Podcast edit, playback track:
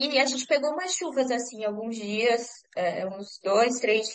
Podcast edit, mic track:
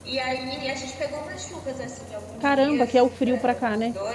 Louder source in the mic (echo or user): user